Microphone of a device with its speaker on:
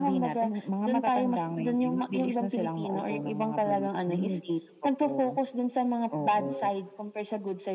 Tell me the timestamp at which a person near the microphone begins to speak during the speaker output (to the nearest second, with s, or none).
none